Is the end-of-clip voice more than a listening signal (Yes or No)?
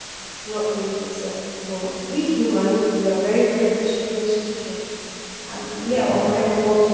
No